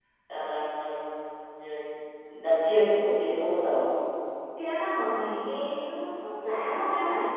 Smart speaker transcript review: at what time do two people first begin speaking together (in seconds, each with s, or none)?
none